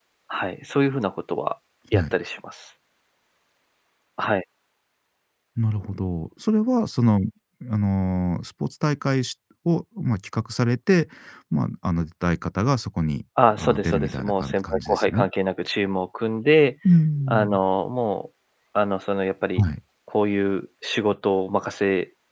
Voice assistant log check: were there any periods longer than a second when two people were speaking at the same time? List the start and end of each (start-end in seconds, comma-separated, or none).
13.5-15.3